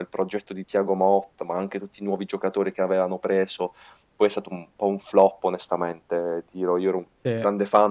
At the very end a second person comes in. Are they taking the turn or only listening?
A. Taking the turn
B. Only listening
B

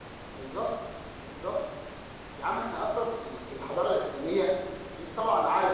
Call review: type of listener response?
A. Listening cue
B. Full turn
A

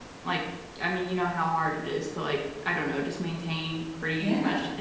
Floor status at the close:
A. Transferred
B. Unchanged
B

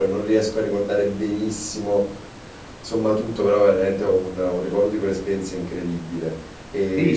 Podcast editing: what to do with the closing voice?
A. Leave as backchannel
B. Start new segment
B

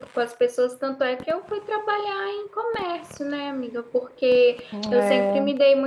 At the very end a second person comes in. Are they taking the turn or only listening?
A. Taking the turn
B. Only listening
B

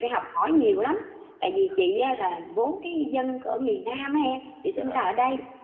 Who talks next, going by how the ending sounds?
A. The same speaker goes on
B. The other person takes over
A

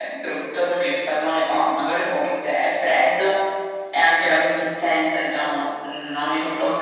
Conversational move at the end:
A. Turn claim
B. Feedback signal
A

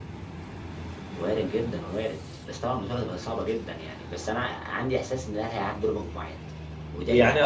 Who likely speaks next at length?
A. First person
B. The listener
B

